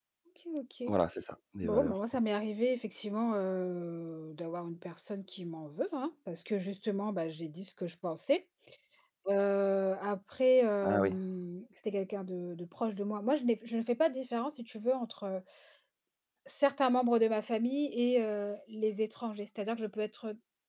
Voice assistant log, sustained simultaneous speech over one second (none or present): none